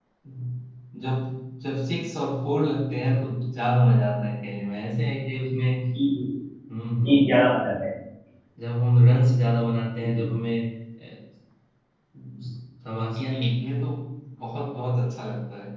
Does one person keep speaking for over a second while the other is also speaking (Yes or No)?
No